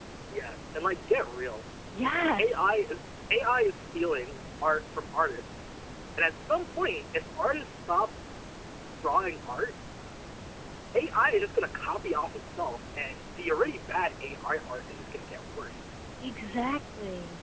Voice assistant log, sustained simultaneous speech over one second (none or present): none